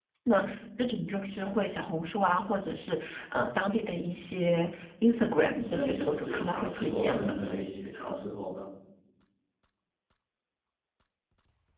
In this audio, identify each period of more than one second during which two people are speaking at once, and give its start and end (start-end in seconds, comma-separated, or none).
5.5-7.3